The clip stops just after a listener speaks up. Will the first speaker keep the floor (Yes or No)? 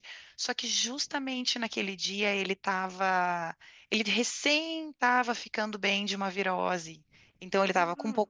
Yes